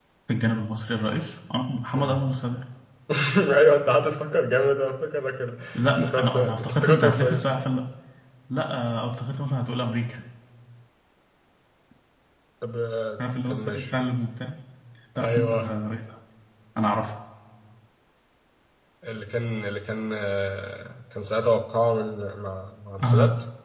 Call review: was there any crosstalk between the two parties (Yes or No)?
Yes